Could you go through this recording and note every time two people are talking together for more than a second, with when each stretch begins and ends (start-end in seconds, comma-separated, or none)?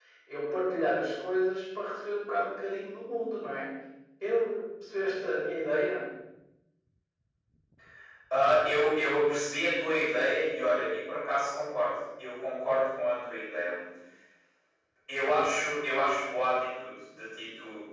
none